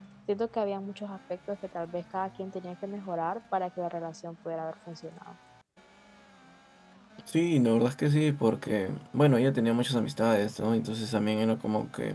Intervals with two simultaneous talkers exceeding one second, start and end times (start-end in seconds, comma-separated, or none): none